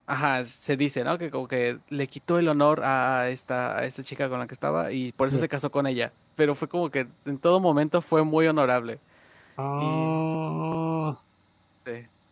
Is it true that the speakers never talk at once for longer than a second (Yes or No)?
Yes